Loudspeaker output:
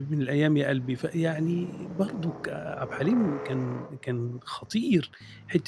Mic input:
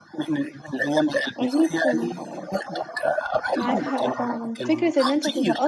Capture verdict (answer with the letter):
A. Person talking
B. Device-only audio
A